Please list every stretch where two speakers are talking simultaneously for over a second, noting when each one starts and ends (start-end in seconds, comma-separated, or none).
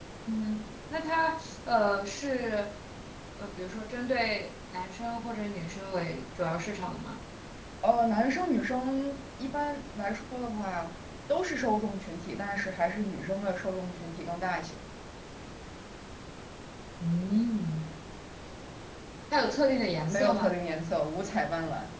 none